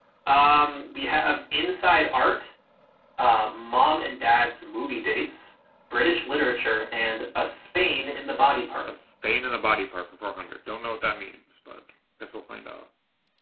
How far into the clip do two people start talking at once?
none

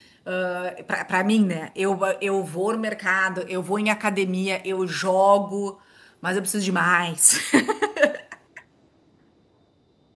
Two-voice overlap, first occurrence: none

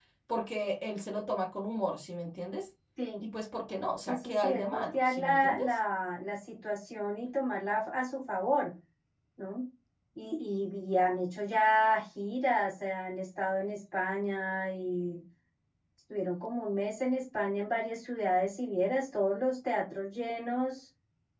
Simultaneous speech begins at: 4 s

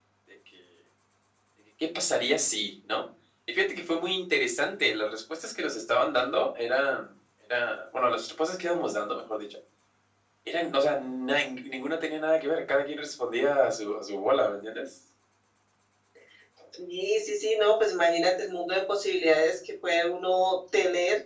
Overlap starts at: none

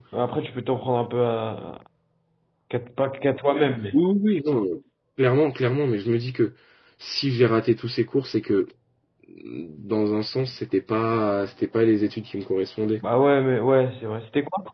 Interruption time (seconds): none

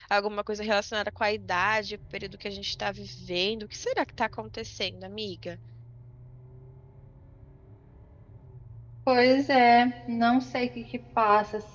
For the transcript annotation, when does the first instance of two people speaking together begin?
none

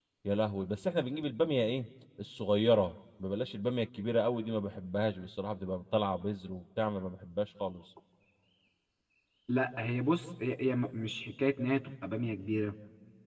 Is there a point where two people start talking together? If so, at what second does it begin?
none

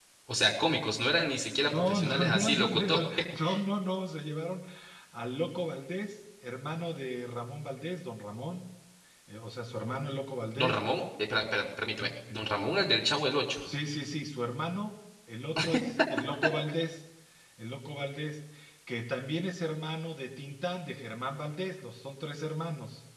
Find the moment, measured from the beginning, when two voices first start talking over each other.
2 s

